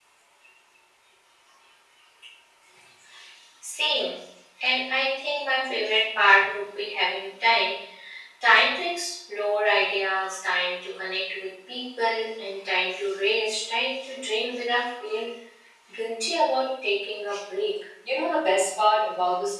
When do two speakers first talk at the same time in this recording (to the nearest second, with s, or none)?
none